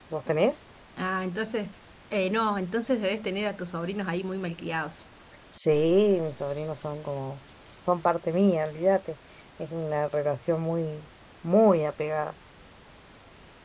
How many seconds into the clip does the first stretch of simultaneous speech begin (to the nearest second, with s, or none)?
none